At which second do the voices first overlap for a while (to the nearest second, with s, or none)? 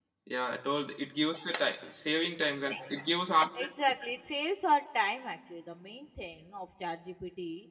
none